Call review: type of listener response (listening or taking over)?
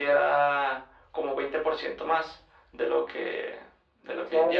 taking over